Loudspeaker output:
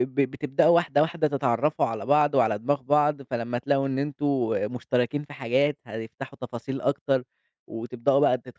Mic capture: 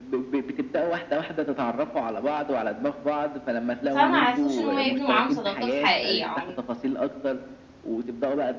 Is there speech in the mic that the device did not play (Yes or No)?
Yes